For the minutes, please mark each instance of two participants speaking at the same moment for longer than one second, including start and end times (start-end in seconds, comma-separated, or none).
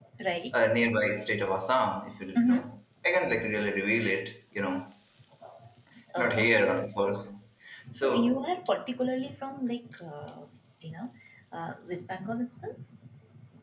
none